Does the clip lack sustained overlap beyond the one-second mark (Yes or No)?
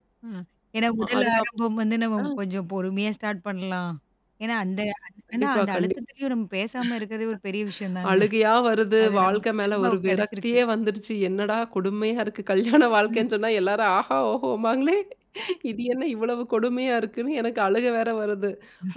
No